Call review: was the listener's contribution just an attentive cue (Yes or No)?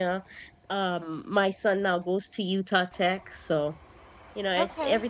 Yes